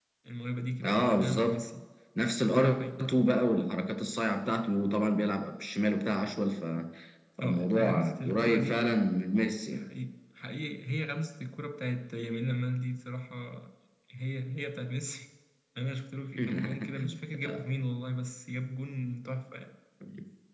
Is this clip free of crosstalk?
No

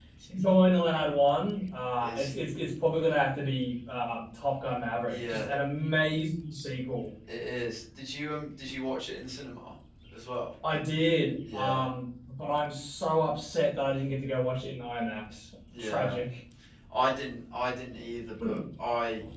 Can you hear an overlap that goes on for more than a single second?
No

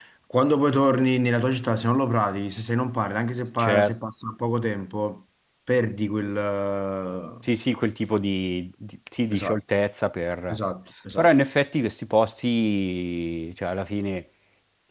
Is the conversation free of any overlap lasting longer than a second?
Yes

